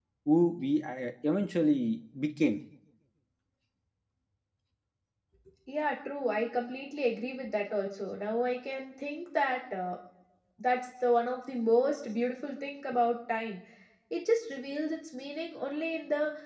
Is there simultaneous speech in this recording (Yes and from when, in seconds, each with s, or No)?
No